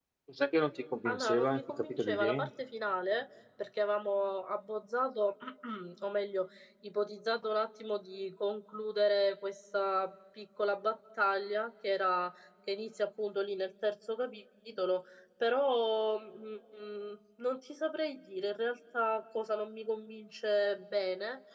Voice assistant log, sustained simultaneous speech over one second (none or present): present